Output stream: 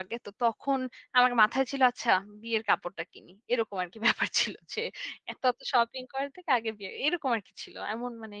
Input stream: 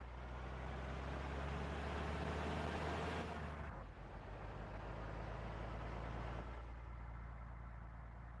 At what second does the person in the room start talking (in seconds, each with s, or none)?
none